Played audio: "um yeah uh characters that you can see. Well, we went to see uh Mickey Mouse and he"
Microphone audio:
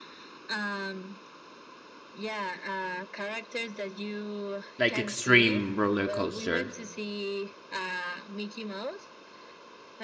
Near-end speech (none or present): present